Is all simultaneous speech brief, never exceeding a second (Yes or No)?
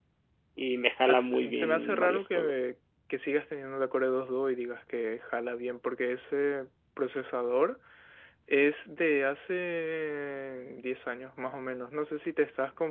No